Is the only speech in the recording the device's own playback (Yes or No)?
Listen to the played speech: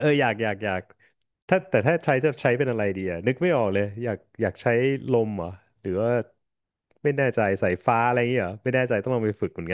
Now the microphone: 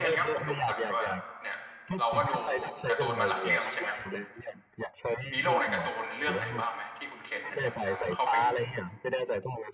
No